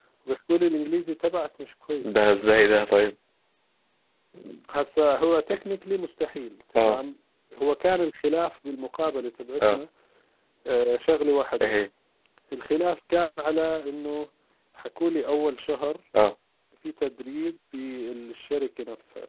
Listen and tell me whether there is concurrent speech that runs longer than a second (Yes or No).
No